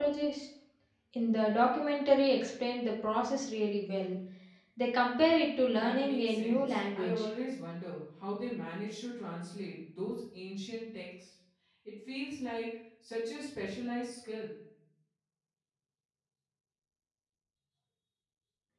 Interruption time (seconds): 5.7 s

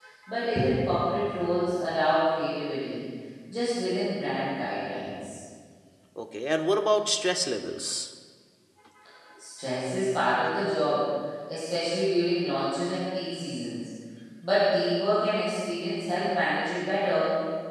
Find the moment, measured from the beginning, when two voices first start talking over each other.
none

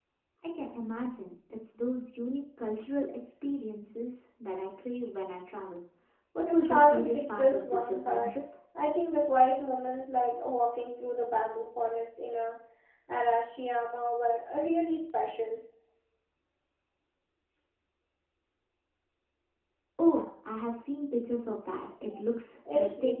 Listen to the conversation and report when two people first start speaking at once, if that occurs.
6.5 s

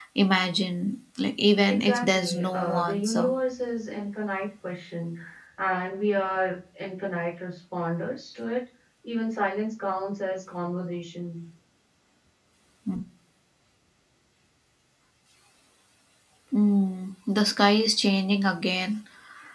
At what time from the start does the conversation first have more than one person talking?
1.7 s

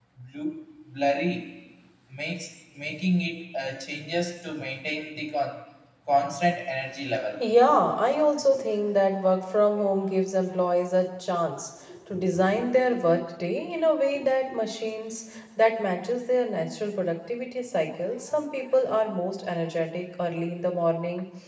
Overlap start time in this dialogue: none

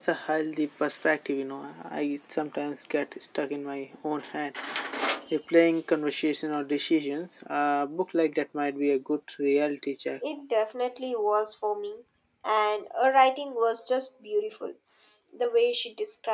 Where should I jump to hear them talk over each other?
none

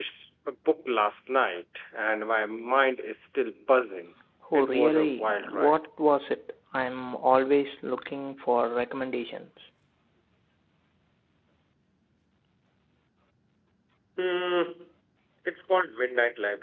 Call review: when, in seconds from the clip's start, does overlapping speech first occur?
4.5 s

